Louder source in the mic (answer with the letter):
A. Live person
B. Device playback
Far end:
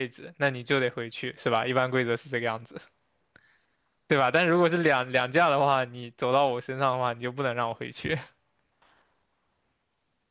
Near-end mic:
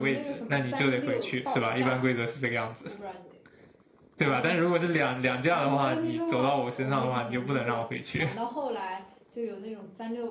B